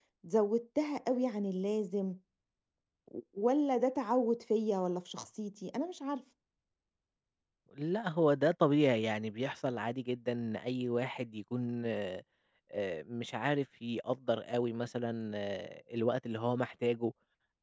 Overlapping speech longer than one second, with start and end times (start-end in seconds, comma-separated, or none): none